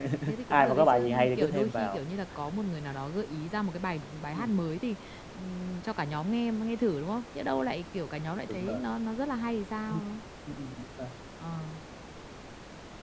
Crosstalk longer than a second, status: present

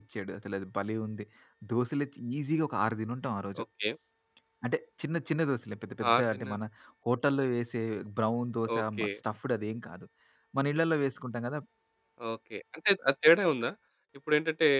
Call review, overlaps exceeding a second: none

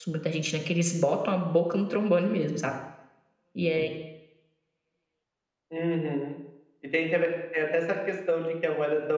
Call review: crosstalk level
none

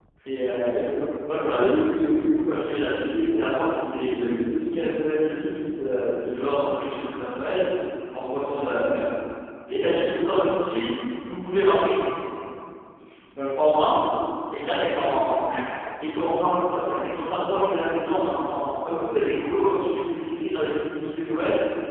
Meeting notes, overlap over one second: none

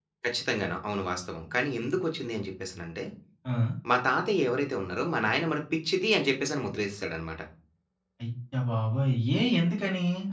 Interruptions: none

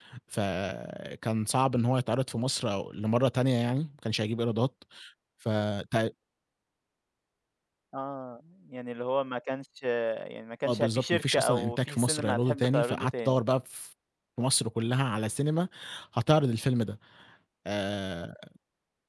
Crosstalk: present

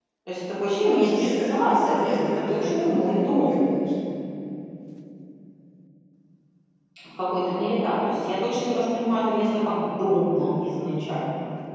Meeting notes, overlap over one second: present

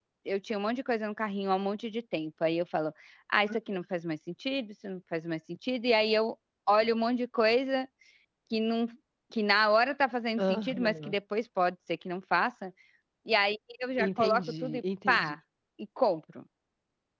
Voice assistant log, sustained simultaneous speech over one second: present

